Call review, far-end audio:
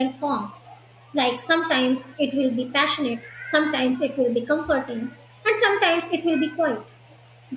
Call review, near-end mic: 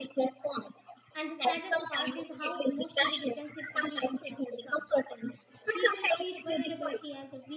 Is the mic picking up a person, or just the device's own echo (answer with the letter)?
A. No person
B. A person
B